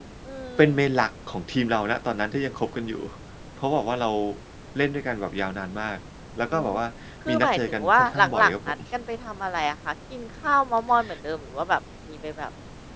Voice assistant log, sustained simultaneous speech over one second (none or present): present